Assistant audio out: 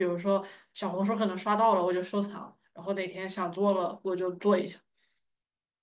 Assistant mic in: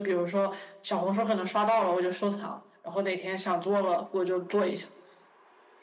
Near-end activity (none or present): none